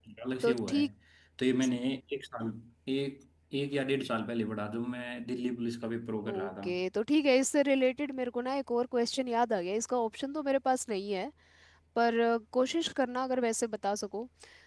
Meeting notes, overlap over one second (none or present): none